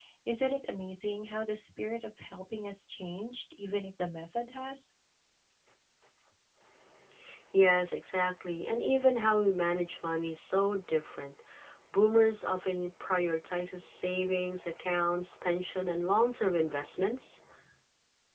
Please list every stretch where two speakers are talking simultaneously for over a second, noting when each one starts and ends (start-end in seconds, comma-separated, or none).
none